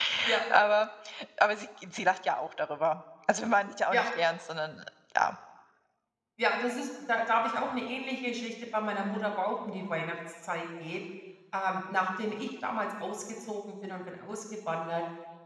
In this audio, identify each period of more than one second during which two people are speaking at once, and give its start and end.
none

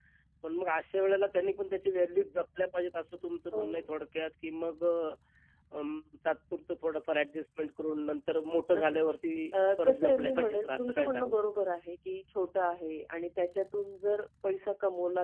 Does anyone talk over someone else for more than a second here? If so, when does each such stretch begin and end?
9.8-11.4

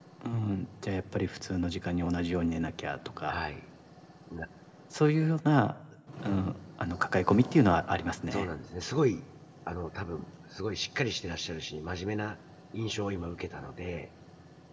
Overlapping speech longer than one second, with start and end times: none

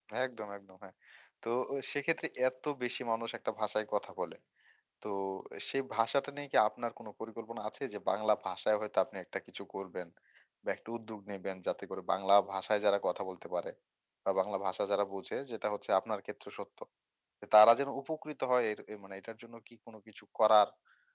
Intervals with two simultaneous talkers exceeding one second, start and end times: none

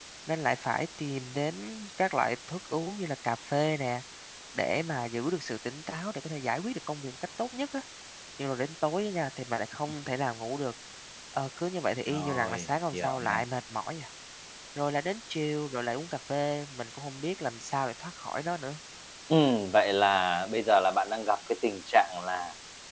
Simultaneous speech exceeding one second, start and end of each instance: 12.1-13.4

